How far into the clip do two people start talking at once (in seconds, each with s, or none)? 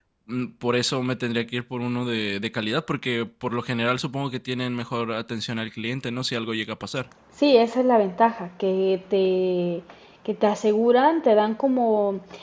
none